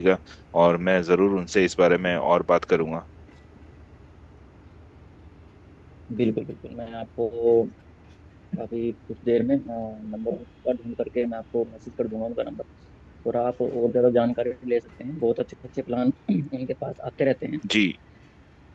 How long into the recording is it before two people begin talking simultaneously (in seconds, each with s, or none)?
none